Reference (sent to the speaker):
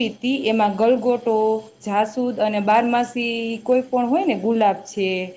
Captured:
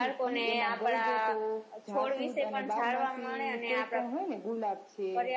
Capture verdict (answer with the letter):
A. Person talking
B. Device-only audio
A